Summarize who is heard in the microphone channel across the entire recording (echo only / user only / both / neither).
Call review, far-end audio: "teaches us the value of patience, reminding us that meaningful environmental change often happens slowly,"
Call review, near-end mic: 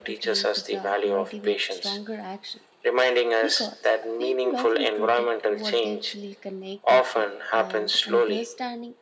both